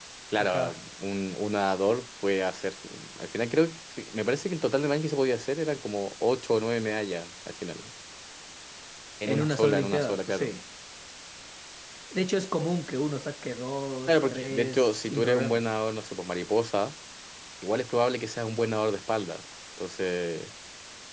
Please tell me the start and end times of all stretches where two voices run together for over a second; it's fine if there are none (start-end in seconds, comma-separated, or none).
9.3-10.5, 14.1-15.6